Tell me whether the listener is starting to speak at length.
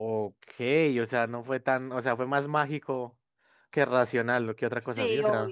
No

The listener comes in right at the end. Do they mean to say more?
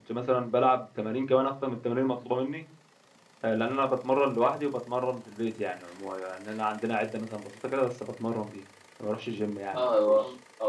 Yes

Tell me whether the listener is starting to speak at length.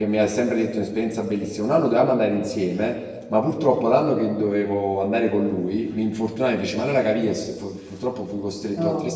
No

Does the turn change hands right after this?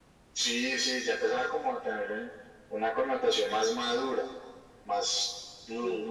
No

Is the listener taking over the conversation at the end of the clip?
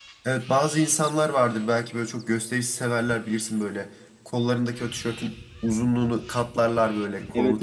Yes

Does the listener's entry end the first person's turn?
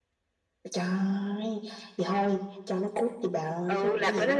Yes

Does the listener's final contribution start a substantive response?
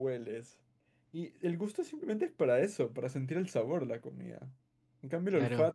No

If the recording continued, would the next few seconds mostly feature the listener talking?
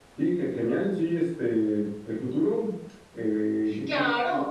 Yes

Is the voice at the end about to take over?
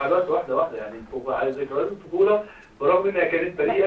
No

